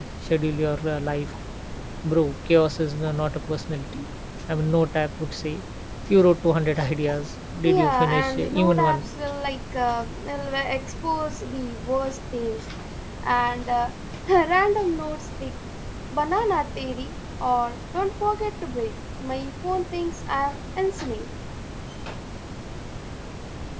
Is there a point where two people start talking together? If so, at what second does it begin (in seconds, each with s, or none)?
7.6 s